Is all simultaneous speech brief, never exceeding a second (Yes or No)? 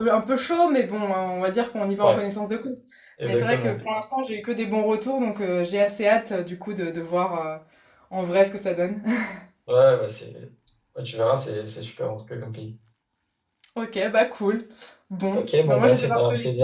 No